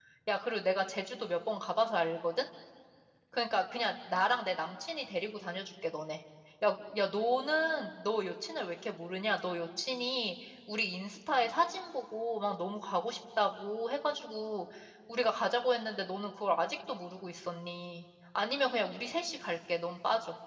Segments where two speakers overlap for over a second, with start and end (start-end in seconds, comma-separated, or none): none